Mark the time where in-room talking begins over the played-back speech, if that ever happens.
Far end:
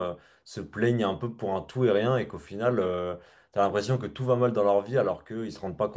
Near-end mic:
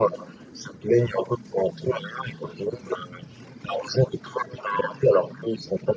none

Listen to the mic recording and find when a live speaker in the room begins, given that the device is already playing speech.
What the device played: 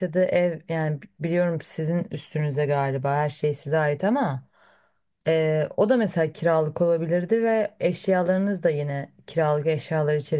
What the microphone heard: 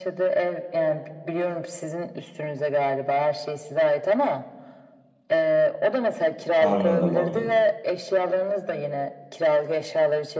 6.6 s

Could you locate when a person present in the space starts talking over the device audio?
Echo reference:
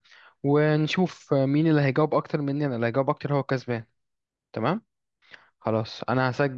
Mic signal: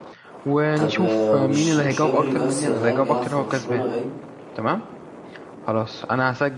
0.8 s

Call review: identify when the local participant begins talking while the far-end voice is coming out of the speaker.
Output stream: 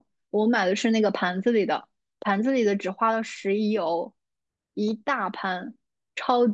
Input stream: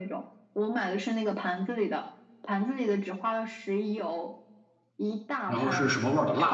5.5 s

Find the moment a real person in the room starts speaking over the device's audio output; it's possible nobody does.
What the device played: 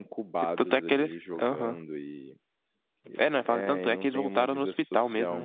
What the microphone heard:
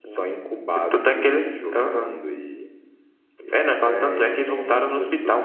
none

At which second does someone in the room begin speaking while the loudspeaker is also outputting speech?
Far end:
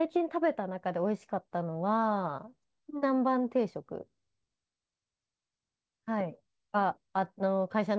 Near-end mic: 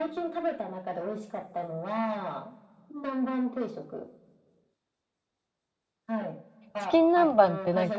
6.8 s

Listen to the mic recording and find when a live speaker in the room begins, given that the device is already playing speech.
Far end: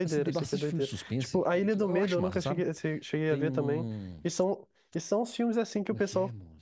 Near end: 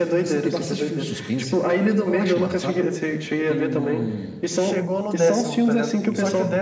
4.5 s

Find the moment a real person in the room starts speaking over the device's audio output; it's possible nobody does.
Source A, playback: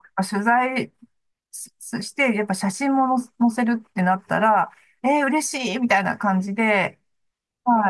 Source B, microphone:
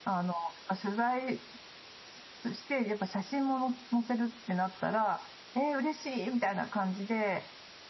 none

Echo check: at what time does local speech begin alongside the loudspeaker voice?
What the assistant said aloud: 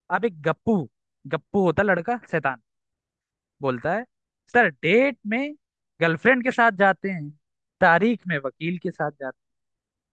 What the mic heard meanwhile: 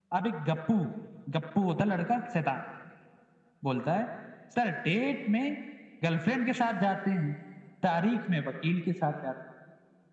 none

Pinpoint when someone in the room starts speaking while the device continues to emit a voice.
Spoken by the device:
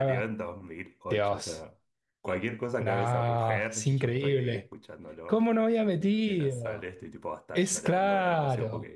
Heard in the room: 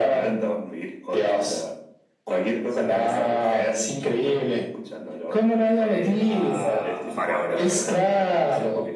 5.7 s

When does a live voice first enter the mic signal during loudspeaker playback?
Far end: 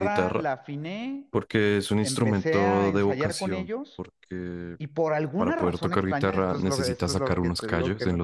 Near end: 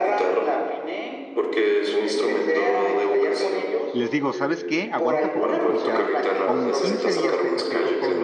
3.9 s

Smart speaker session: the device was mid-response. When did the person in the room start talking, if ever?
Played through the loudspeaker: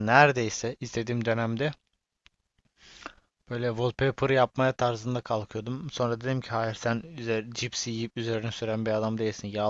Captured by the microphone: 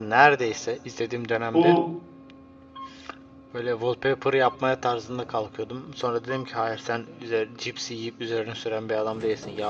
1.5 s

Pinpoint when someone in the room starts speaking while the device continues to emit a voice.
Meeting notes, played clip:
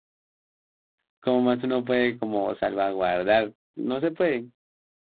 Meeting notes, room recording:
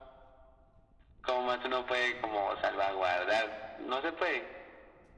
none

